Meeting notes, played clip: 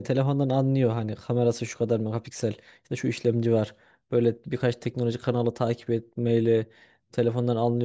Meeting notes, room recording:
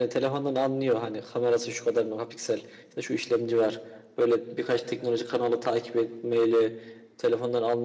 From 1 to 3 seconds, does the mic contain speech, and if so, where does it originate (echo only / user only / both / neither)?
echo only